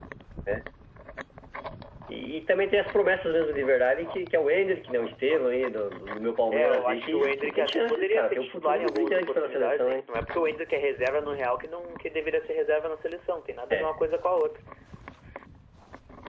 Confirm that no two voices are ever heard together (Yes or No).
No